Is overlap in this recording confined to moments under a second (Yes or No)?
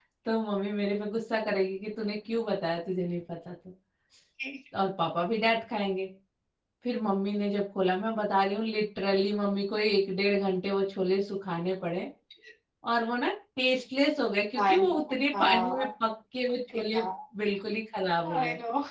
Yes